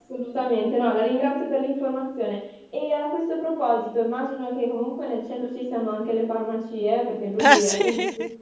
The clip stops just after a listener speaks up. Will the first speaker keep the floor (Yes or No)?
Yes